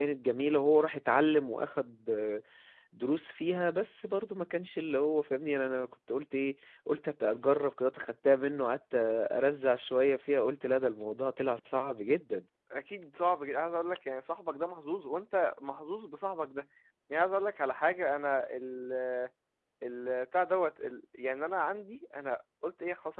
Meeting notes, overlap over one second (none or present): none